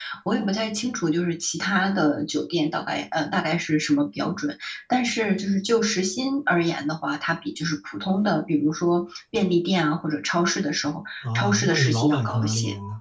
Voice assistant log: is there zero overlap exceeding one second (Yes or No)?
No